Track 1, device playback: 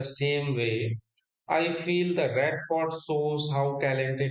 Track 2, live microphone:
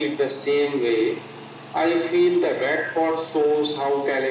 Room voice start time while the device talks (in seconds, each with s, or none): none